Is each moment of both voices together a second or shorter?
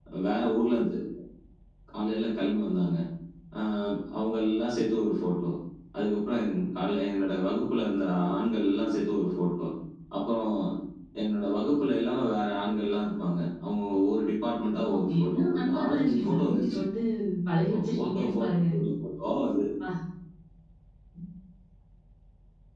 No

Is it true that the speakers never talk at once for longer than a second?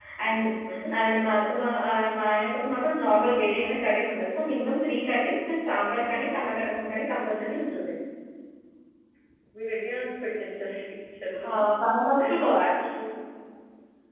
Yes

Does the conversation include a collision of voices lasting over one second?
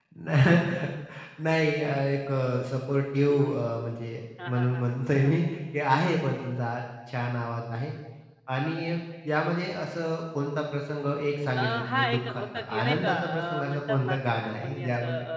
Yes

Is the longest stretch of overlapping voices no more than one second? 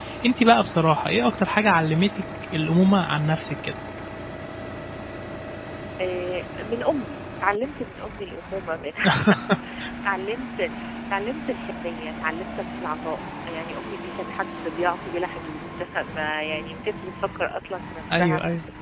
Yes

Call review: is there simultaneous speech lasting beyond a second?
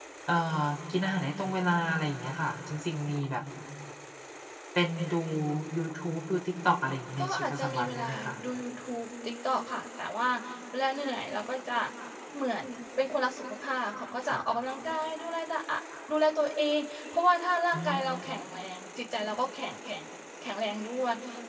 Yes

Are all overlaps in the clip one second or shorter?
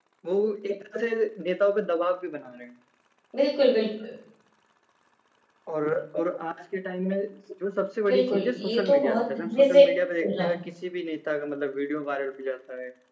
No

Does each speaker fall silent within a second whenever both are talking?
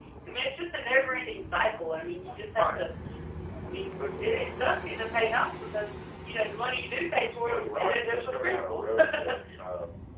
No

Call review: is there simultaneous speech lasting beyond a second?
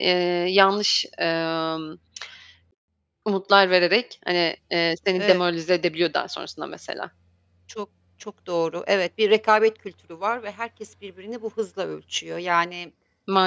No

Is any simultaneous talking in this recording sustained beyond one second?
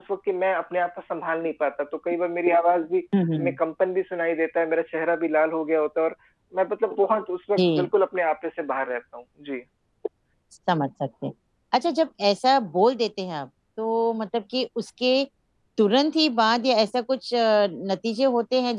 No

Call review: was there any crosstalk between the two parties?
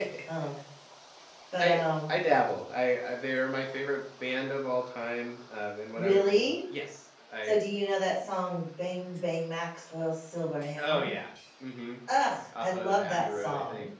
Yes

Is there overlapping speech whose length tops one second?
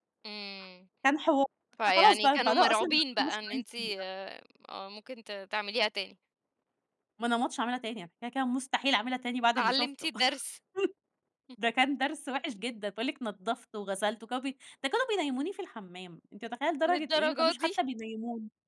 Yes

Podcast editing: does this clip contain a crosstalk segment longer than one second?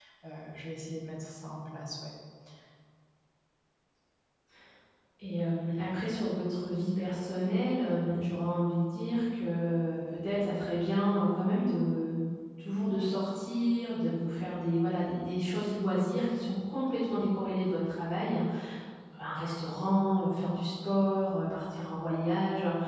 No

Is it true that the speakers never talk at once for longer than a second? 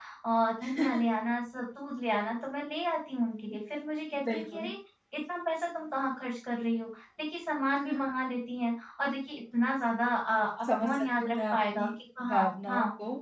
No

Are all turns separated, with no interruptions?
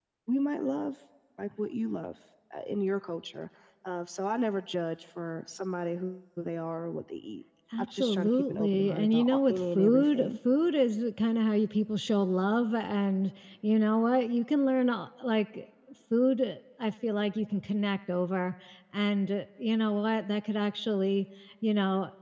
No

